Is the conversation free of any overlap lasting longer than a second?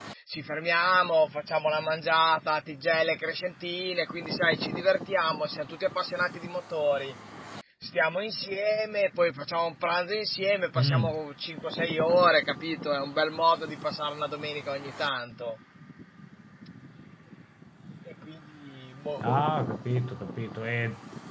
Yes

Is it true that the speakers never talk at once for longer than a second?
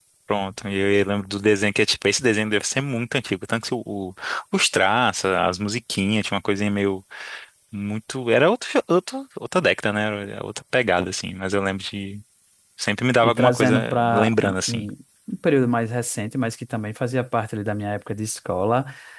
No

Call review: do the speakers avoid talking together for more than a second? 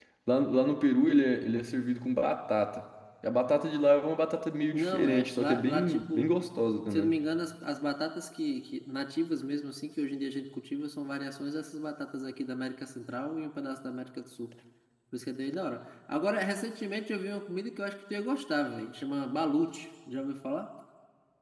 No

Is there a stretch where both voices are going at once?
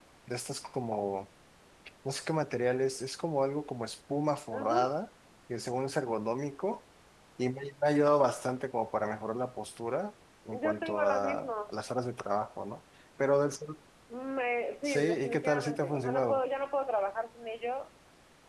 Yes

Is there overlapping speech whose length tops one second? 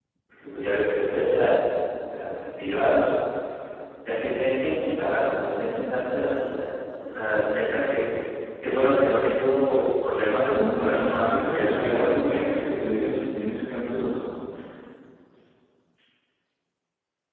Yes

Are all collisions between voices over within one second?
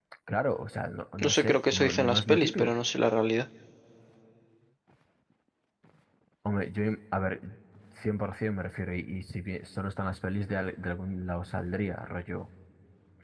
No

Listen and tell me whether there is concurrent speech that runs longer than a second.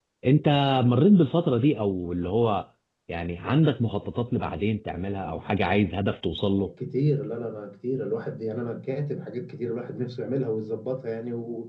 No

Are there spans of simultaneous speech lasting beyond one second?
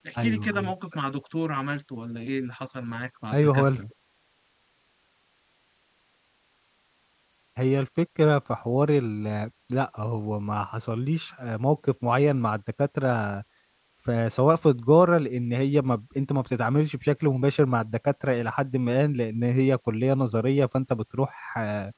No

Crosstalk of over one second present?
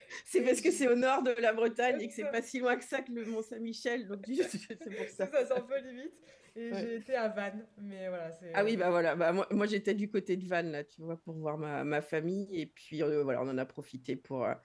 No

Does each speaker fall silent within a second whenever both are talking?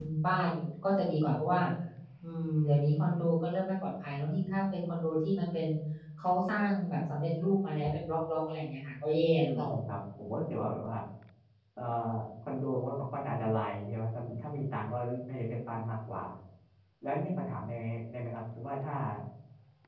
Yes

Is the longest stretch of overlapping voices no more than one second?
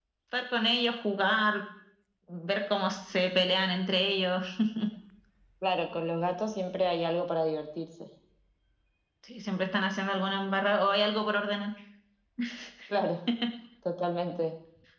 Yes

